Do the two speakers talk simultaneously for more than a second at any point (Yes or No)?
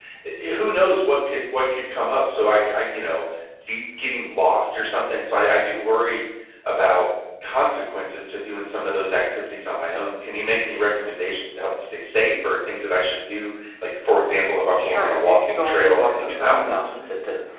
Yes